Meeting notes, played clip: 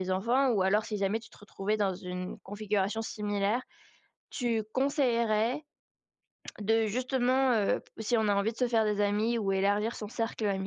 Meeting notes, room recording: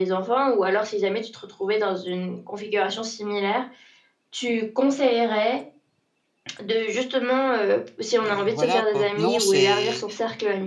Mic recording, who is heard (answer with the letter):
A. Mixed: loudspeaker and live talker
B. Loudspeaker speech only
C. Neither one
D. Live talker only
A